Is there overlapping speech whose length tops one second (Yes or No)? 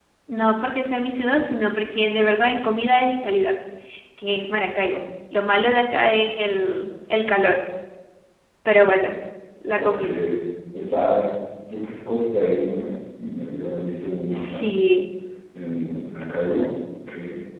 No